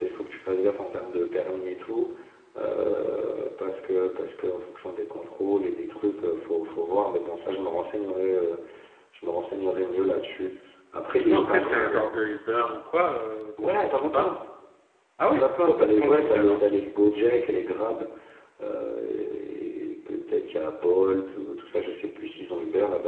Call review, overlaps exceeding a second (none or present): present